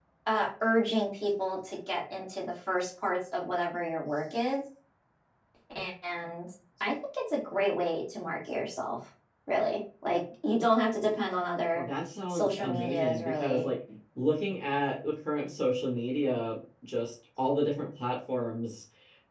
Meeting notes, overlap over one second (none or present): present